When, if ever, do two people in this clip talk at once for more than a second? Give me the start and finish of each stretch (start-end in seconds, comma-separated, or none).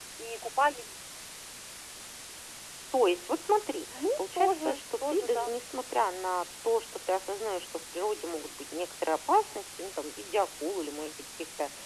4.2-5.5